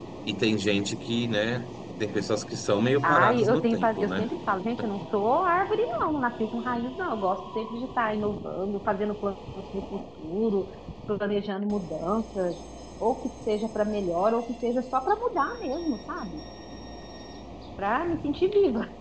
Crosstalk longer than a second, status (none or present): present